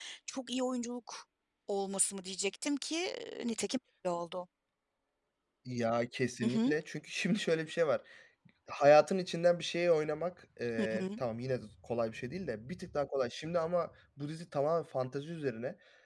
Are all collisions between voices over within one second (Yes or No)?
Yes